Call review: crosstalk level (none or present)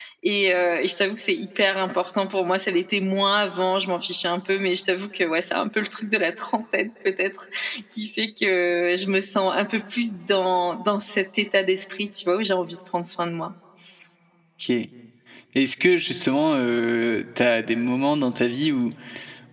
none